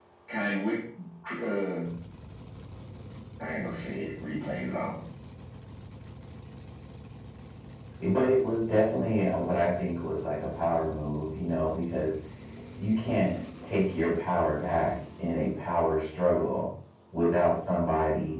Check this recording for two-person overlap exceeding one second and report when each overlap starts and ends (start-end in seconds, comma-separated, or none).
none